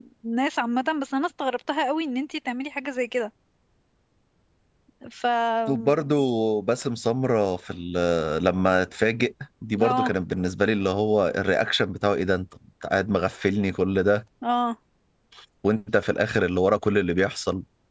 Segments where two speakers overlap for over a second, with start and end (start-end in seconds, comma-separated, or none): none